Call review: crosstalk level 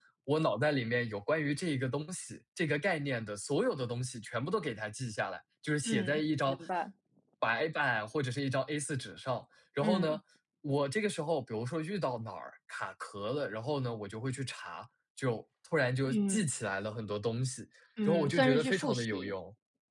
present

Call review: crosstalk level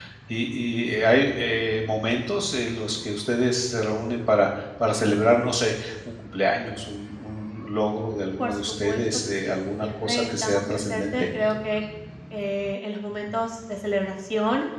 present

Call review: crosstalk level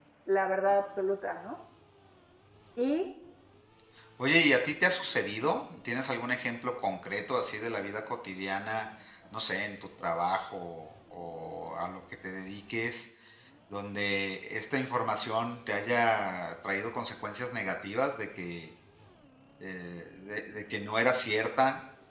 none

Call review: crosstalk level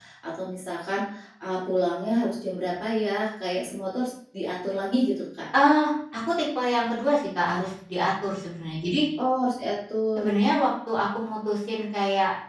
none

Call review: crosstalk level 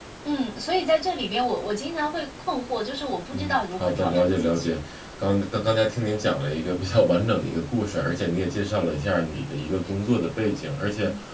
present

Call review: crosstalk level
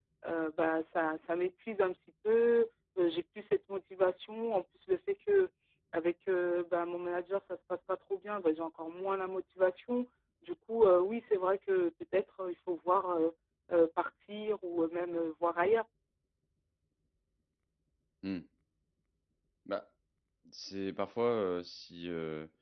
none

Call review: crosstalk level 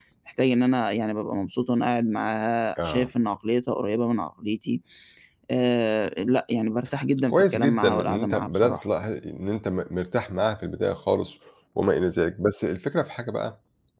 present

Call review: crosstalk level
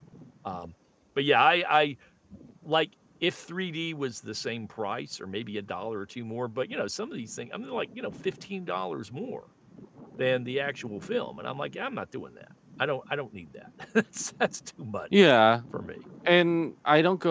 none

